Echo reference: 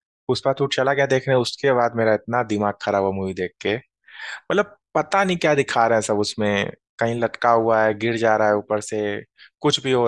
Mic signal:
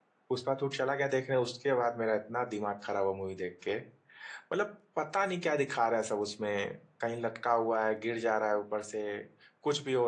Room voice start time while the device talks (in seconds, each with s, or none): none